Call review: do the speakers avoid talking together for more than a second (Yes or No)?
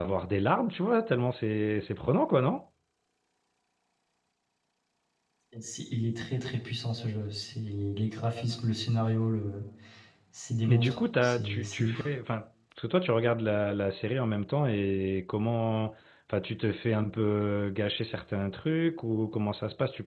No